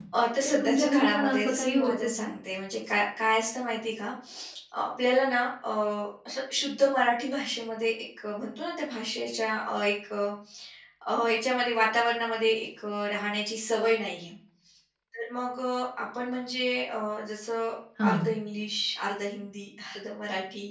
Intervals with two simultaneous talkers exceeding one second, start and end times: 0.6-2.3

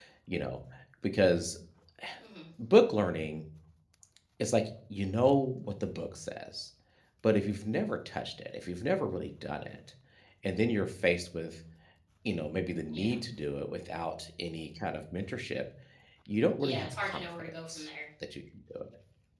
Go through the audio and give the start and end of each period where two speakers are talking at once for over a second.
16.6-17.9

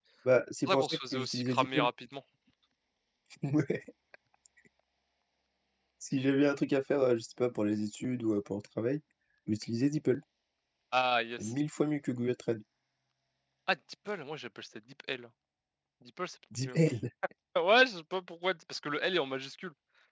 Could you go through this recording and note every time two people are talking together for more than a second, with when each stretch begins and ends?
0.7-1.9

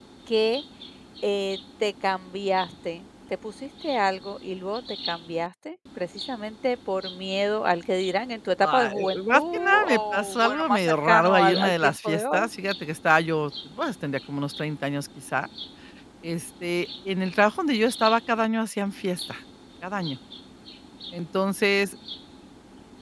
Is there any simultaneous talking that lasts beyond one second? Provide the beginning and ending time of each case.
8.6-12.5

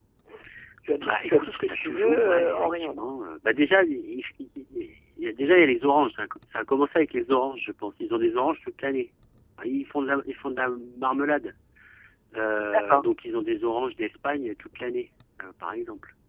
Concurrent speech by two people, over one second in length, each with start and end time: 1.0-3.0

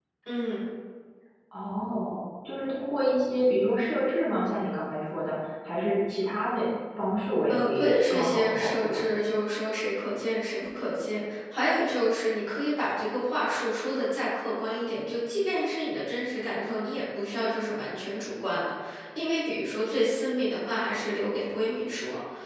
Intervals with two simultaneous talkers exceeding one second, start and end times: 7.5-9.0

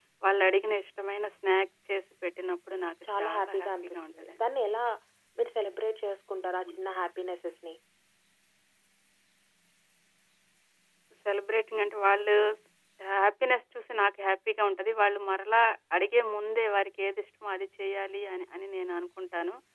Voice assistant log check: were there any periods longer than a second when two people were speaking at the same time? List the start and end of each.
3.1-4.4

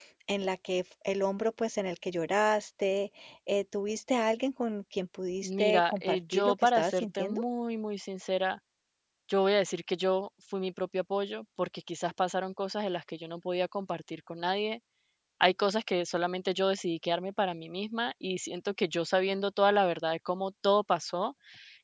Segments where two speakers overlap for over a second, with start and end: 5.4-7.4

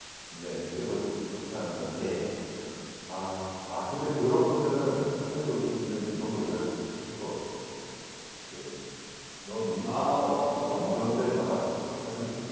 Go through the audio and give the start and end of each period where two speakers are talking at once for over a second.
9.8-11.2

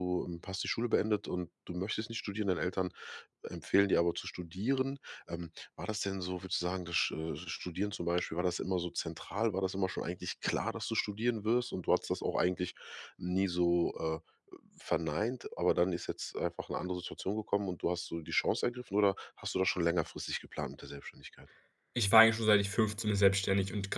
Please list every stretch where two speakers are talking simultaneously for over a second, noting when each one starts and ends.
none

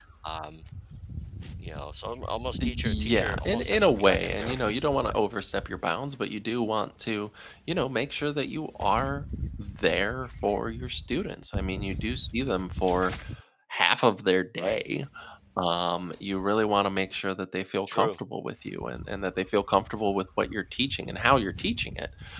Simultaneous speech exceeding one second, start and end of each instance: 2.6-5.1

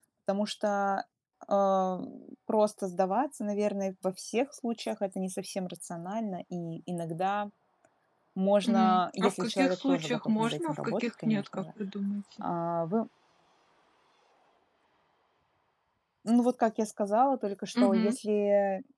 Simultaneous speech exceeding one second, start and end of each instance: 8.6-11.6

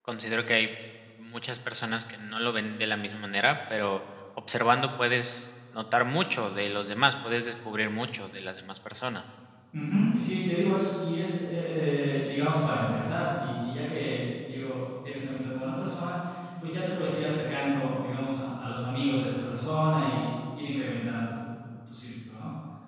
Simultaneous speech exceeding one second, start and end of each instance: none

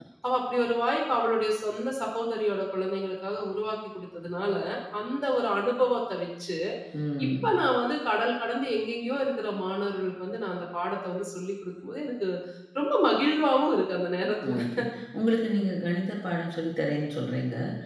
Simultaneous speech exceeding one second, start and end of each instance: none

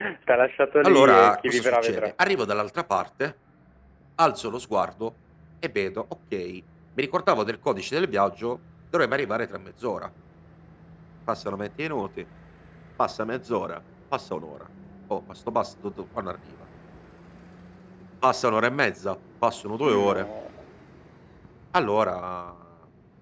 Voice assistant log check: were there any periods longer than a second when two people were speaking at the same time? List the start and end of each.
0.8-2.1

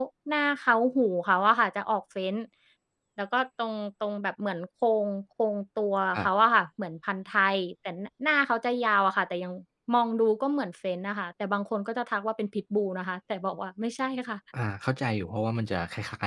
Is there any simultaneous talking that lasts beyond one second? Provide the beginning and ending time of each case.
none

